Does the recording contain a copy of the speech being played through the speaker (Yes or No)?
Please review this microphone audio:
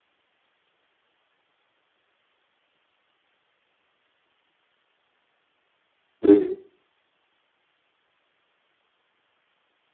No